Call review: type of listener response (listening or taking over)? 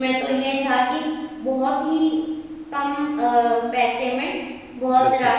listening